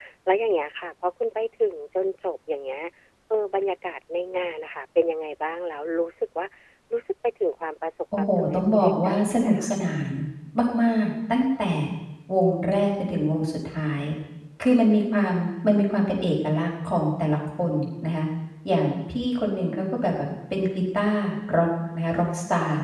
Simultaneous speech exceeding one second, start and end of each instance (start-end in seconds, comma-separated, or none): 8.2-9.7